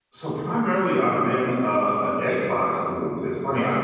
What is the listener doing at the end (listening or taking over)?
listening